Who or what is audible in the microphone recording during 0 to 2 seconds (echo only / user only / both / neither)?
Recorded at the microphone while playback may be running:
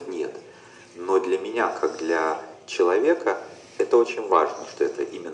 echo only